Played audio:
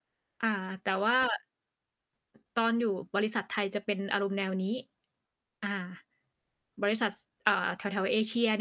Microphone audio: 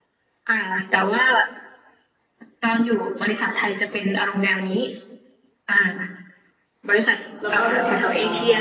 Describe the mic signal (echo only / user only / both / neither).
both